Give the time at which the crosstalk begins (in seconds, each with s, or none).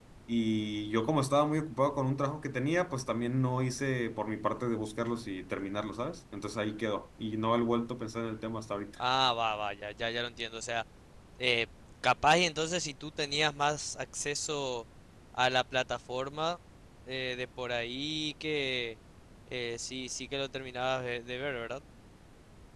none